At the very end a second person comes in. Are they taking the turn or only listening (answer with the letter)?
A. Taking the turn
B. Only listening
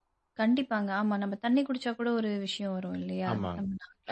A